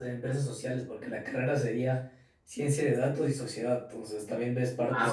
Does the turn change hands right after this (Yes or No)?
No